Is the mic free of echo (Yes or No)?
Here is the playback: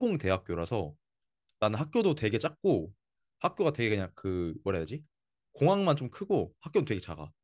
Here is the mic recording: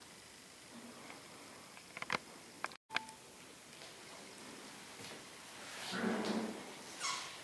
Yes